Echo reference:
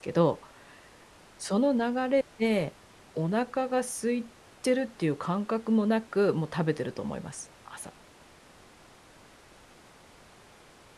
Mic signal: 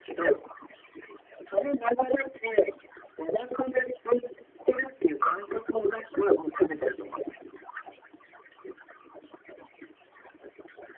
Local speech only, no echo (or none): none